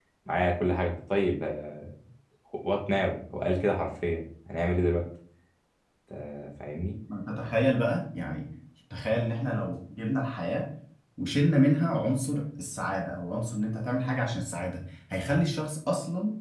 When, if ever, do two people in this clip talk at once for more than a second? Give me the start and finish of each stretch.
none

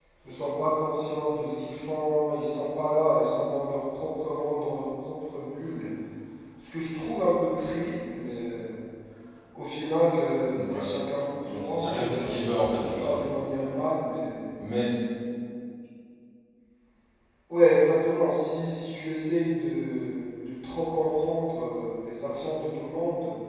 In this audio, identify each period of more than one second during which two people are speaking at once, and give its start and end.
11.5-13.2

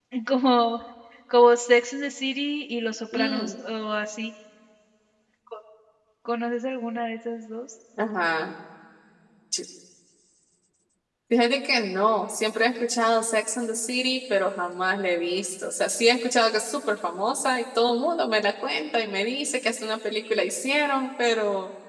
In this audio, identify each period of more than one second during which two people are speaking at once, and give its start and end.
none

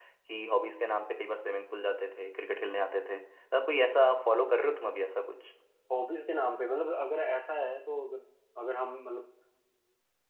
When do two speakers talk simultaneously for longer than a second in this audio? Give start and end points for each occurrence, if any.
none

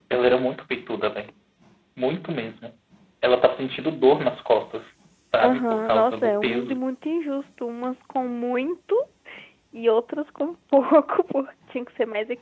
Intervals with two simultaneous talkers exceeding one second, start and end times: 5.4-6.8

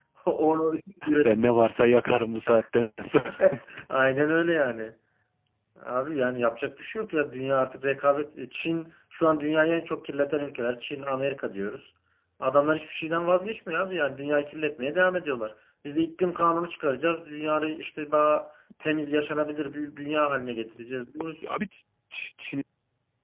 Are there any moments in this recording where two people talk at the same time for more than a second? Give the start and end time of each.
none

